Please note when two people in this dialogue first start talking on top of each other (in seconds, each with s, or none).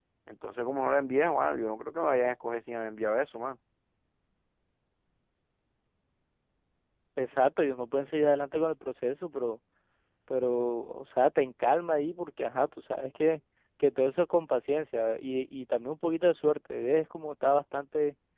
none